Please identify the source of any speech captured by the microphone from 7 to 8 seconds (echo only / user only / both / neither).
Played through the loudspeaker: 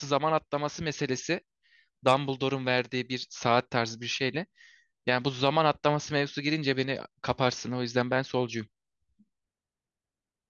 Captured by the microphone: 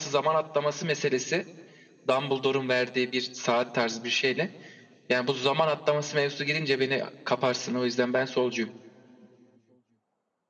echo only